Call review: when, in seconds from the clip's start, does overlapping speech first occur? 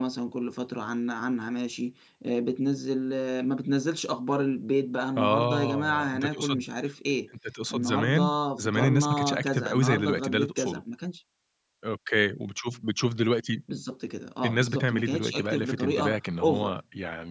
5.2 s

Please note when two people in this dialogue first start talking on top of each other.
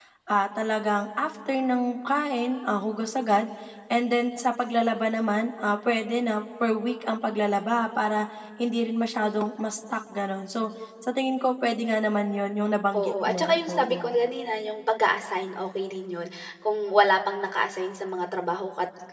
12.9 s

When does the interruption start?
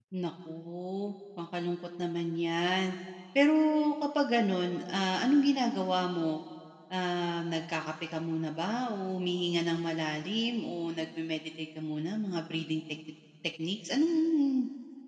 none

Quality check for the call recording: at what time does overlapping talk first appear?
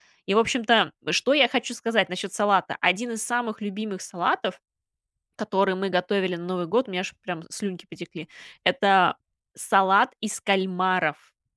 none

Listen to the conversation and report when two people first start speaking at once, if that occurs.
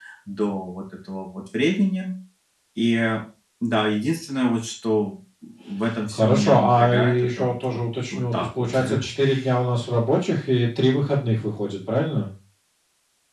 5.9 s

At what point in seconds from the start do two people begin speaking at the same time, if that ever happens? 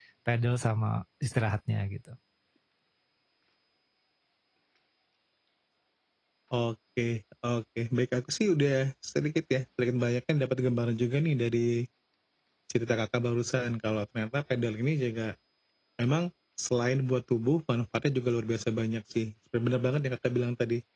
none

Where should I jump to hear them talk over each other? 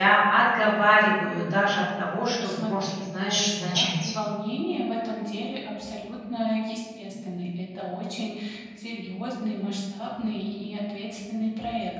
2.2 s

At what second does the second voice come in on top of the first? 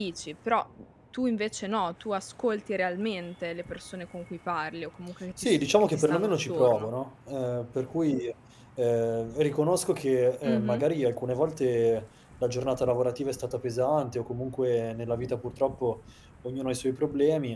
5.4 s

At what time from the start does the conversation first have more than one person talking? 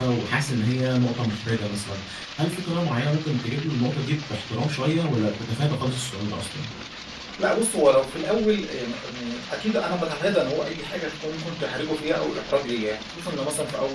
none

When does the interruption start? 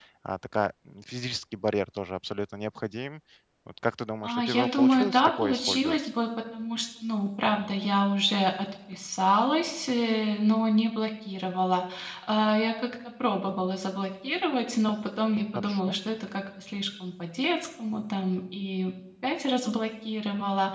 4.2 s

